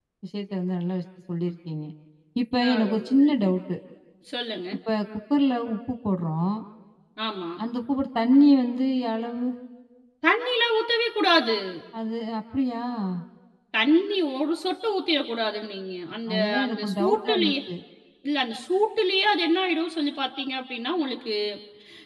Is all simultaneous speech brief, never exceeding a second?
No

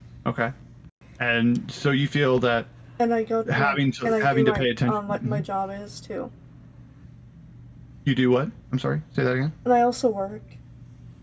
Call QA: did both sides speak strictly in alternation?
No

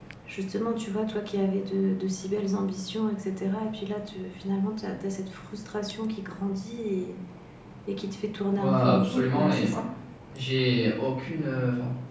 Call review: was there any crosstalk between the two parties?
Yes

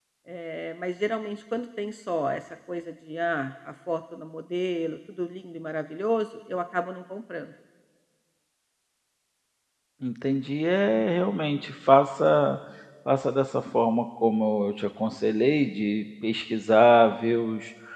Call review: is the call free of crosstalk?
Yes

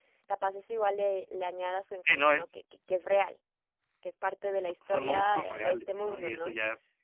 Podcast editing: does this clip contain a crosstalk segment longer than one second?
Yes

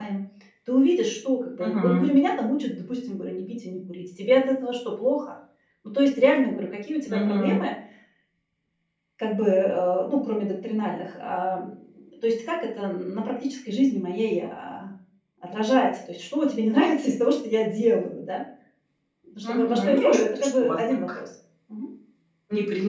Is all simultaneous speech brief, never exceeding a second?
No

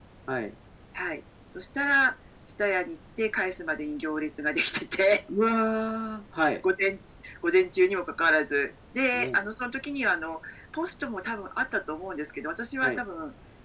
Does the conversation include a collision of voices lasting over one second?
No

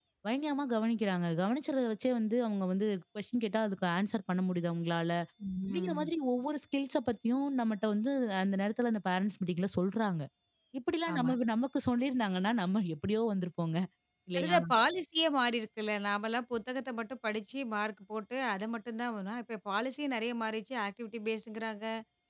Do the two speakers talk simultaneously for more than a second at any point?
No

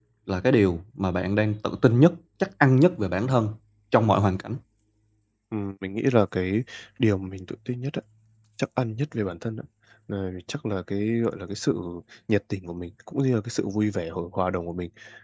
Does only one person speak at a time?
Yes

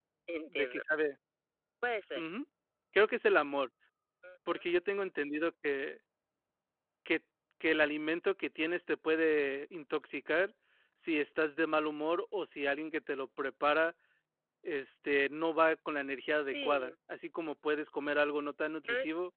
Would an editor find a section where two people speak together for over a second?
No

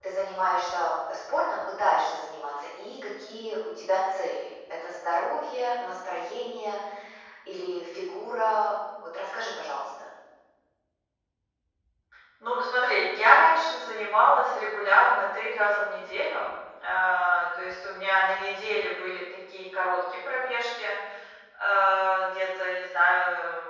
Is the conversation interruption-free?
Yes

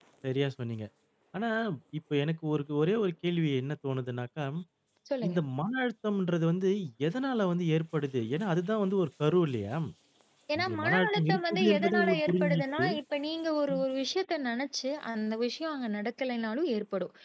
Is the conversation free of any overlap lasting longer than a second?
No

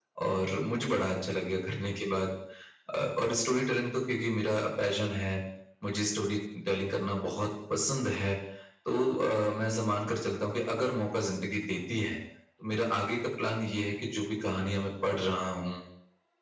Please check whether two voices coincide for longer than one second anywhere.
No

